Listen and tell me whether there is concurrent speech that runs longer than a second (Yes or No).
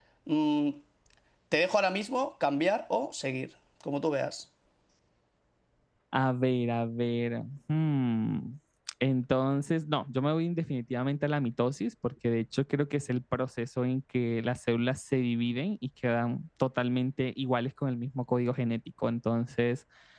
No